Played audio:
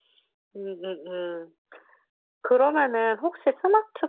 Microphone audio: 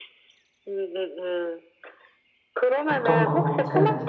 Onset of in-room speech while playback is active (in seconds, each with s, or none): 2.9 s